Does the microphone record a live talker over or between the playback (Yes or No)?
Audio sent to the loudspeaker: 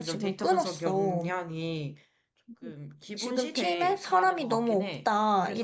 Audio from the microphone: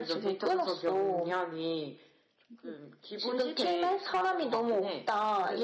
No